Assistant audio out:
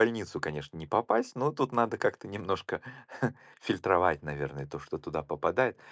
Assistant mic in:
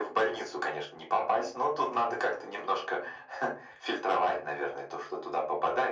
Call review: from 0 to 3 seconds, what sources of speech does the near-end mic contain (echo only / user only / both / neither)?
echo only